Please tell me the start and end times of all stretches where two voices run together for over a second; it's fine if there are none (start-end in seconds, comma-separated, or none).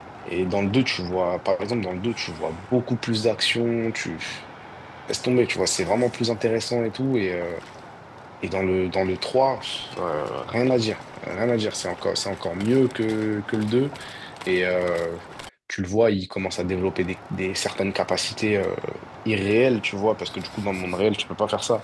none